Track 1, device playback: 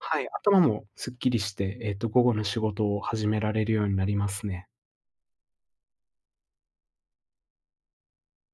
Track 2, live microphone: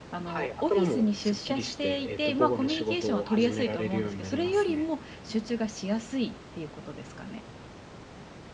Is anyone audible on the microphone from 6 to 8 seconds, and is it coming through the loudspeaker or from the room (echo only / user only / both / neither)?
user only